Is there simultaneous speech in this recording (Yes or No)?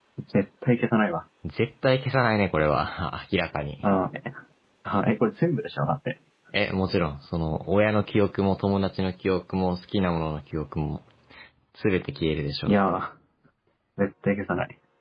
No